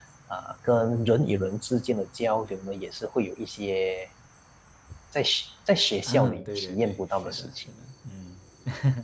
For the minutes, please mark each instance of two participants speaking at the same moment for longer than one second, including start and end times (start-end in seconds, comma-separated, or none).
6.1-7.5